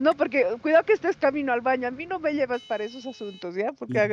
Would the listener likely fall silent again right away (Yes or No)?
Yes